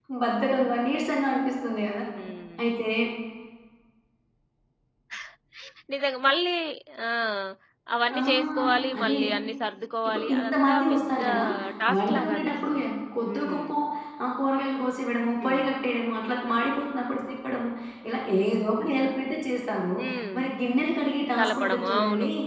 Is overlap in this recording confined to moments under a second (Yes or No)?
No